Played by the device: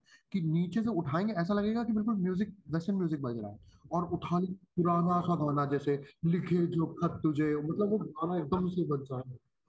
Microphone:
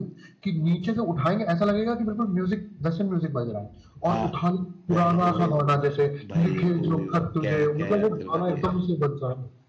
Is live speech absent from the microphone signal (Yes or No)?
No